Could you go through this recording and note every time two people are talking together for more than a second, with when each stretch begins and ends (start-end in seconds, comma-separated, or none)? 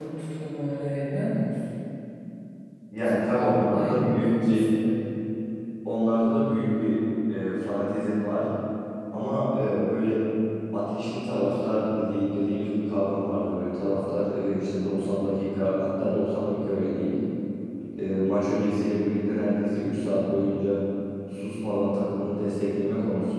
3.3-4.6